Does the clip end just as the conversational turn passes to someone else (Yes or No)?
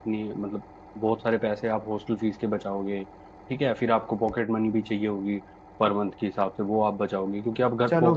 Yes